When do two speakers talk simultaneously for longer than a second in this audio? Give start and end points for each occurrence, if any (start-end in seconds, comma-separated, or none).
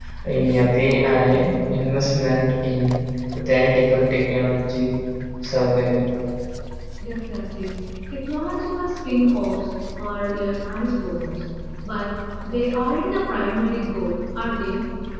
none